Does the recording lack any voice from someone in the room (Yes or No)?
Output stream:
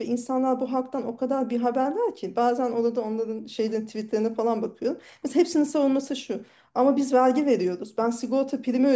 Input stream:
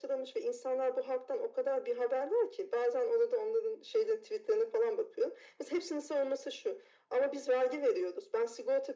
Yes